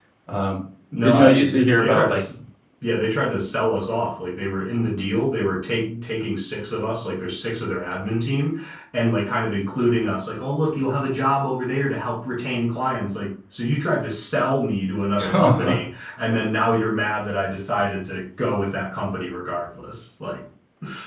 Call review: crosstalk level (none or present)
present